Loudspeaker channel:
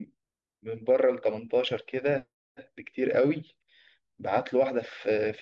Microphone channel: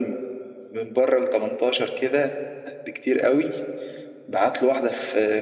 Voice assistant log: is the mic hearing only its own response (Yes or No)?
Yes